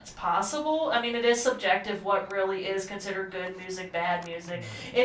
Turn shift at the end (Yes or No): No